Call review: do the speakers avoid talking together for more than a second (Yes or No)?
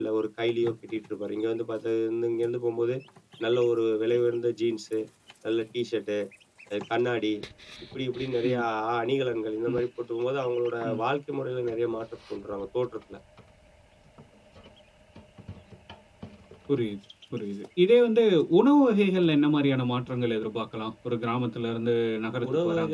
Yes